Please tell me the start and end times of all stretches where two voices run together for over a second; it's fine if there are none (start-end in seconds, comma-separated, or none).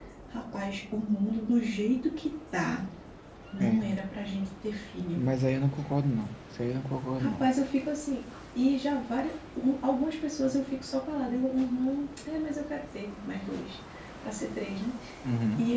none